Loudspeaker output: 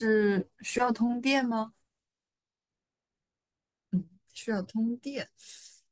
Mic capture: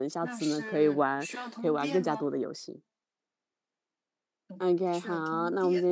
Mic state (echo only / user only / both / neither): both